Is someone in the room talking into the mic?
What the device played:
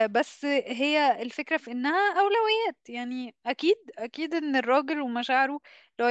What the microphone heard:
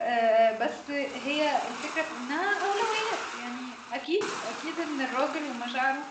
No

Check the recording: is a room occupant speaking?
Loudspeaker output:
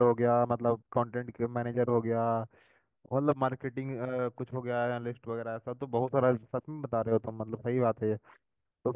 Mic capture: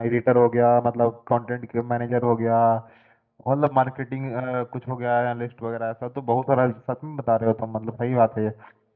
No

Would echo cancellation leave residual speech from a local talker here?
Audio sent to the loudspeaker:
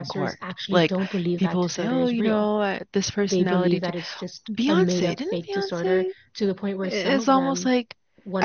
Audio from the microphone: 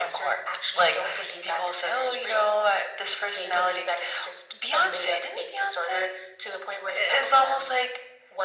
No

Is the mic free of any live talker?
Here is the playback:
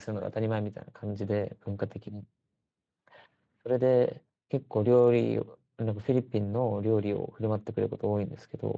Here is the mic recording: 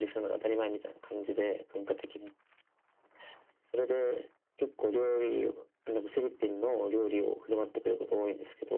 Yes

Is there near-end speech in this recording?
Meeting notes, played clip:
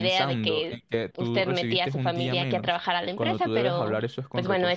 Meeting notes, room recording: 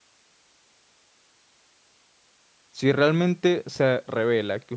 Yes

